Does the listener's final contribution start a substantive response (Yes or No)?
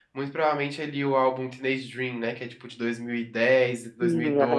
No